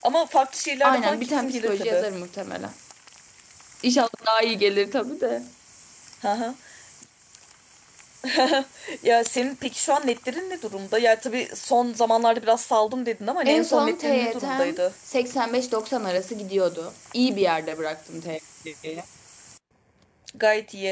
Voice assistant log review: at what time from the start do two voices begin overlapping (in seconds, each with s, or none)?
0.8 s